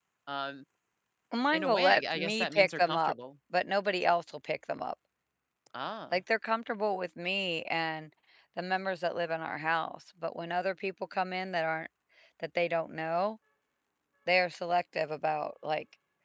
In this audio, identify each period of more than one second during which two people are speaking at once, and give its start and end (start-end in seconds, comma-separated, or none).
1.5-3.1